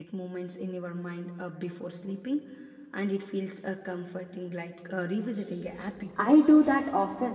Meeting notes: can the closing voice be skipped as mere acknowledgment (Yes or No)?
No